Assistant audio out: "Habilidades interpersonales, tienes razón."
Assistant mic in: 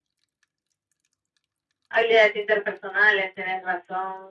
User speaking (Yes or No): No